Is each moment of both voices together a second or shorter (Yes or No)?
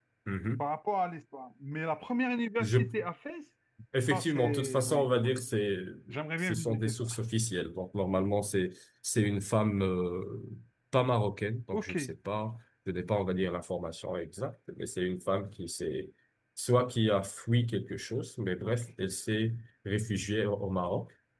No